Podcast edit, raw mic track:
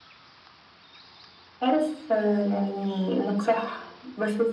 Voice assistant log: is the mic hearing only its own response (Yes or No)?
Yes